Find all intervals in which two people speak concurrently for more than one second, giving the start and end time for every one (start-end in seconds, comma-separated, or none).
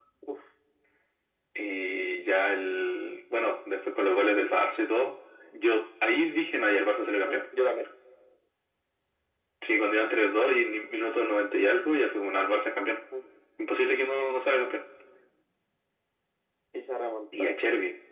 none